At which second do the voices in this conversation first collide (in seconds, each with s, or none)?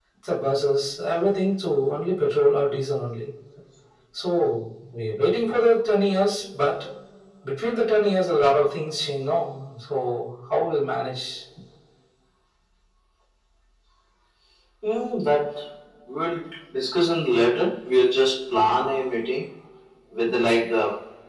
none